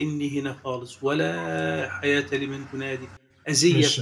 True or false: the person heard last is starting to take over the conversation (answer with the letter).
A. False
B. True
B